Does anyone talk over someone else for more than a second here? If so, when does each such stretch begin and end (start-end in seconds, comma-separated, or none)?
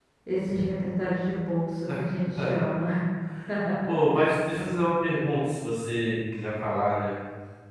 none